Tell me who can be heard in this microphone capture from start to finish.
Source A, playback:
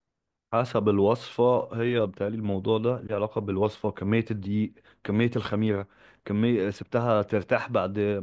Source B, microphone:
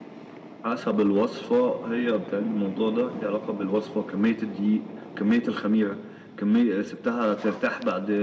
echo only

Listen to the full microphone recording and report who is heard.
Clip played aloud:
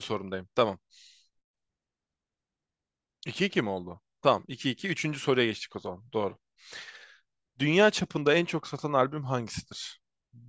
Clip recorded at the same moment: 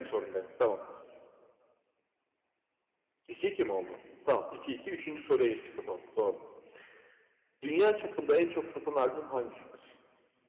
echo only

